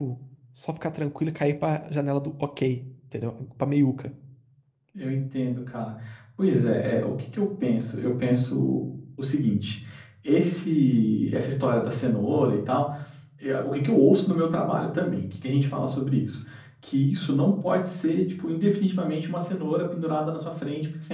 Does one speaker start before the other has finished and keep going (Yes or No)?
No